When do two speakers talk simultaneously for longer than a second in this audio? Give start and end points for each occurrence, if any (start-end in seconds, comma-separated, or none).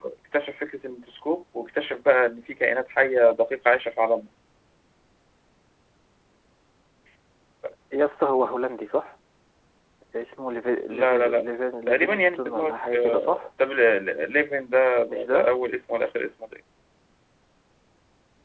11.9-13.5